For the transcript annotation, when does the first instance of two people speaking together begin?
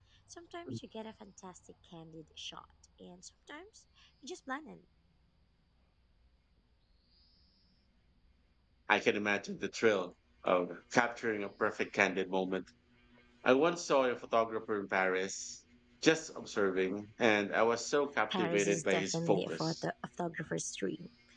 18 s

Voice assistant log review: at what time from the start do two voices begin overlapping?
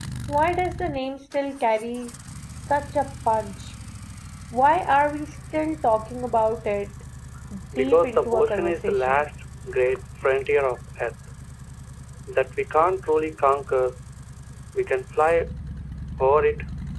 8 s

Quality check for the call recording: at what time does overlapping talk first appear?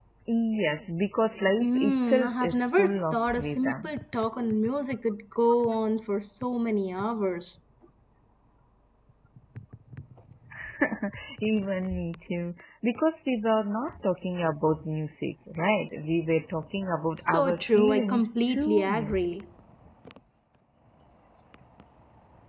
2 s

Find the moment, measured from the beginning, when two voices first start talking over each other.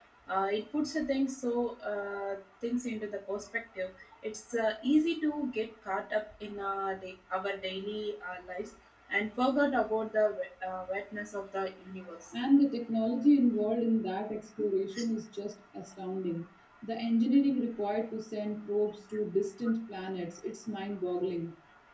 none

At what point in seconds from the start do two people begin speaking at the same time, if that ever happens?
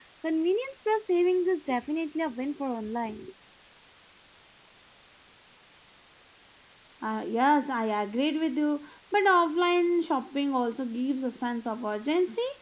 none

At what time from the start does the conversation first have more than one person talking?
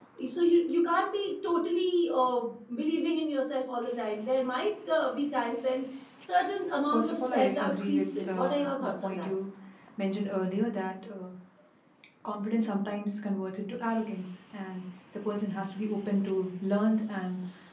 7 s

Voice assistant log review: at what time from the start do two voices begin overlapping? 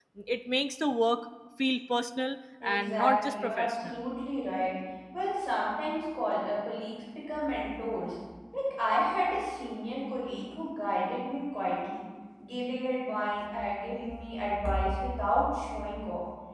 3 s

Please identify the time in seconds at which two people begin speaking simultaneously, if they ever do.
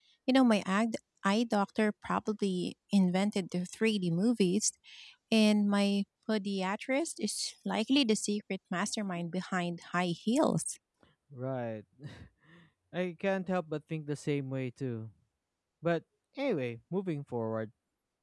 none

